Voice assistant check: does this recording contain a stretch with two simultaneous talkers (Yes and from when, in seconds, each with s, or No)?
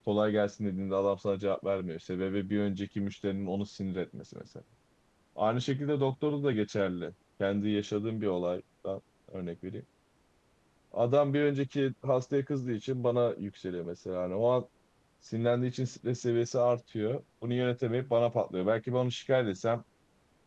No